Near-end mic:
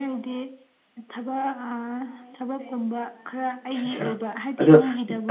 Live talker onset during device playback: 4 s

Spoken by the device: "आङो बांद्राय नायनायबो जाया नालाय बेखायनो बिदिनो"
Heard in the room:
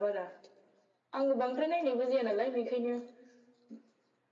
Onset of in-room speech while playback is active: none

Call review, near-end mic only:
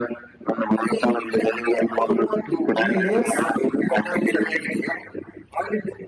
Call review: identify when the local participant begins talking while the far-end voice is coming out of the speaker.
2 s

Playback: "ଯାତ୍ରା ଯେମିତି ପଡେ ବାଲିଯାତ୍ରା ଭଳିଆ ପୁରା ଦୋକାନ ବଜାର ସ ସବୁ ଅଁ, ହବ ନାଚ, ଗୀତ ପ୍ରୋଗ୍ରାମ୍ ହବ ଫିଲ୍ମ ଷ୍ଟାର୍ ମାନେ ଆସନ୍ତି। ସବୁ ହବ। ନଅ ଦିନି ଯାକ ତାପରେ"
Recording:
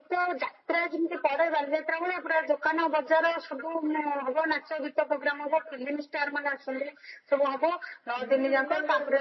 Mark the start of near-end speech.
8 s

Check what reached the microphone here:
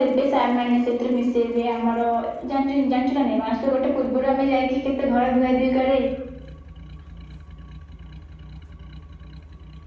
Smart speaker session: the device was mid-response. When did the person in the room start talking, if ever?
none

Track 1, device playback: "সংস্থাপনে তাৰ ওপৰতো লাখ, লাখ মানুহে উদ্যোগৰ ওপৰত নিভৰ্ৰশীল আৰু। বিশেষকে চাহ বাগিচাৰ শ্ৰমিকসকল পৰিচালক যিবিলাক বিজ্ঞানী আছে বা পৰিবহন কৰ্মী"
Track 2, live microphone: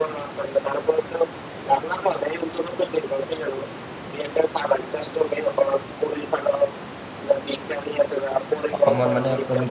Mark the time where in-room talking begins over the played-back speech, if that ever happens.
9 s

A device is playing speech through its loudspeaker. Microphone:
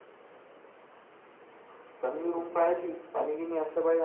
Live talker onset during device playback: none

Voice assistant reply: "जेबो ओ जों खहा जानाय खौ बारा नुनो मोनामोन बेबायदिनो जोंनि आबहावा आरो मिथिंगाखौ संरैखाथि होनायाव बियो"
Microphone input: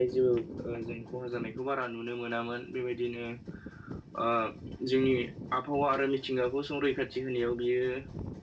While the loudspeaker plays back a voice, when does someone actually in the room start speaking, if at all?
none

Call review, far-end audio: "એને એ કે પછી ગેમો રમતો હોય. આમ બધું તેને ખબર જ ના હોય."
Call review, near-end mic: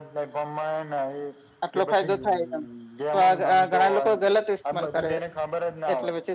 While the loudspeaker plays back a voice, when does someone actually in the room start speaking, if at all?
2 s

